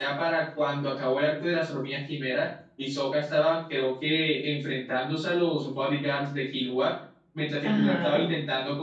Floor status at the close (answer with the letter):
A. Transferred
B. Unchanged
B